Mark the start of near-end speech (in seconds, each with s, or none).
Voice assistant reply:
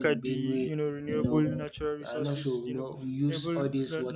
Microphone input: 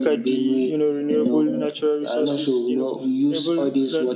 none